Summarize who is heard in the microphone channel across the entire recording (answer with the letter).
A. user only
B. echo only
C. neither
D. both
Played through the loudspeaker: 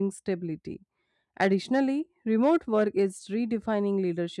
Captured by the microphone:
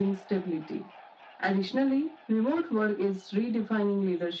B